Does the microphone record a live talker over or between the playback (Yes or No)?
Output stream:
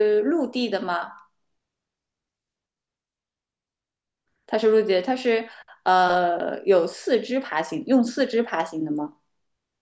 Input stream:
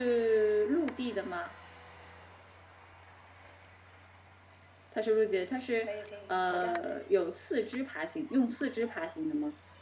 Yes